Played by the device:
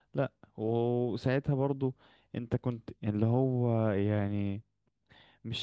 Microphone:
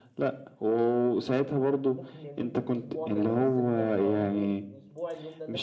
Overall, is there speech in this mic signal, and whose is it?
both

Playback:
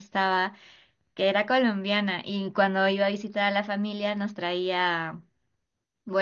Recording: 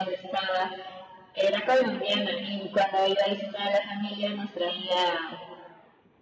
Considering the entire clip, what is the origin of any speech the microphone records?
echo only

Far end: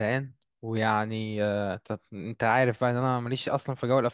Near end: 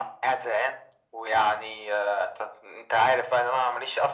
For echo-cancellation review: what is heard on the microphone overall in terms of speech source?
echo only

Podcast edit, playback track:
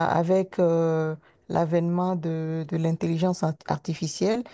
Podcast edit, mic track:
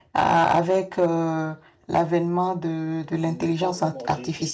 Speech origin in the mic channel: both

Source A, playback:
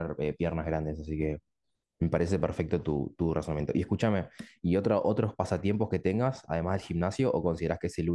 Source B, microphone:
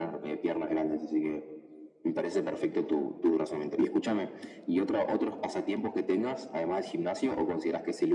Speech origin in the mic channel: echo only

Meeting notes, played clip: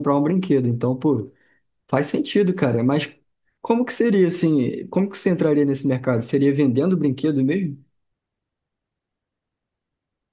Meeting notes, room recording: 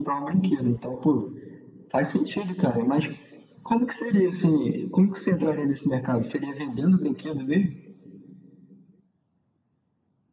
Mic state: echo only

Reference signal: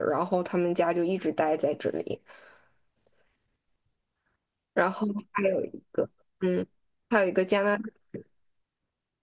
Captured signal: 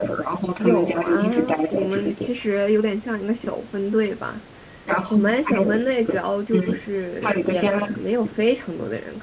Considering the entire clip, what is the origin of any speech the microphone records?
both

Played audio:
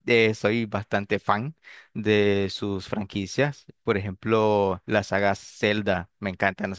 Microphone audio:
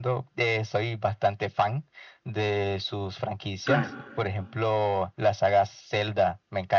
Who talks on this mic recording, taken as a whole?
both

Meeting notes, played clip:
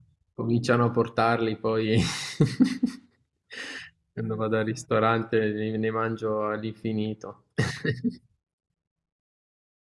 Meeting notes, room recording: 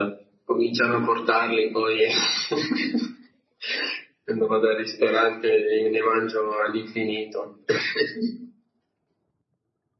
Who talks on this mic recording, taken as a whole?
echo only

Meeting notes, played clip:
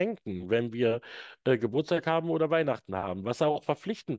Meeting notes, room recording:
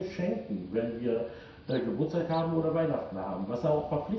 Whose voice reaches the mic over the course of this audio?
echo only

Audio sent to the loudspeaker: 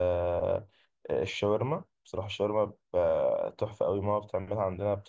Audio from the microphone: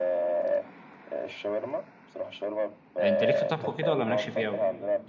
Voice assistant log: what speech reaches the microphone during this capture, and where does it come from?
both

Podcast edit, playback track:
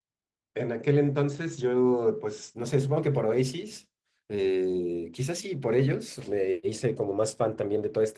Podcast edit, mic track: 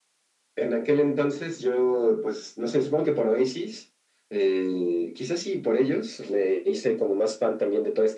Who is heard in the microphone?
echo only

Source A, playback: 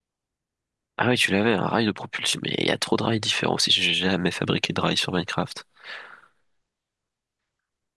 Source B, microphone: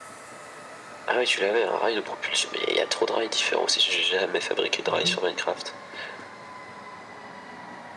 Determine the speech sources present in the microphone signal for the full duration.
both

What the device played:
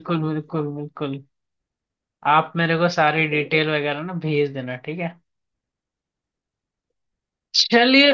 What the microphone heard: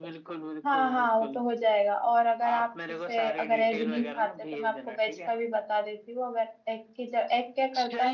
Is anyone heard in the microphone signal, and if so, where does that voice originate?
both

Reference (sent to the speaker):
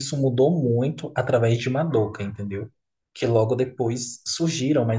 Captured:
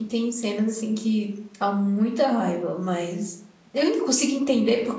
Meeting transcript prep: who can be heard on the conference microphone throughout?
user only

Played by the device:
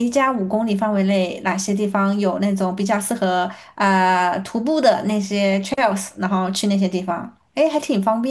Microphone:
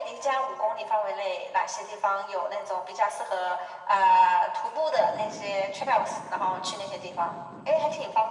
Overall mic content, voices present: echo only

